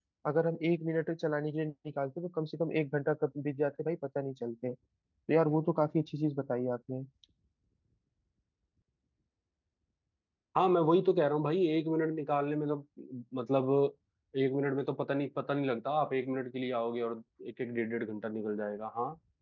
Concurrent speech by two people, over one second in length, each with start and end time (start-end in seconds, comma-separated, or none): none